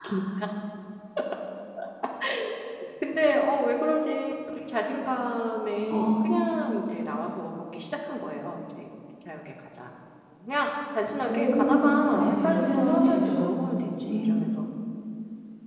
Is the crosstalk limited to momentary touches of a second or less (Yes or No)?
No